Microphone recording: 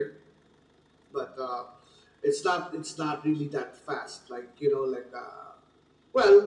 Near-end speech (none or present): none